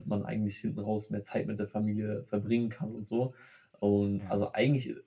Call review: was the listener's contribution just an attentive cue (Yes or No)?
Yes